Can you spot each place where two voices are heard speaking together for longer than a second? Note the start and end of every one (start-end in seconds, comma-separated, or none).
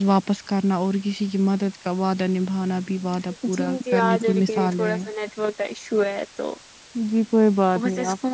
3.5-5.0